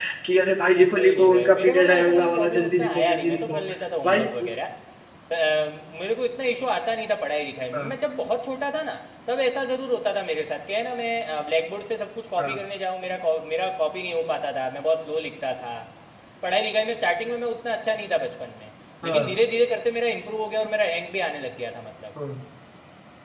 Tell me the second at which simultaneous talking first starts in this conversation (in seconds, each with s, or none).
0.9 s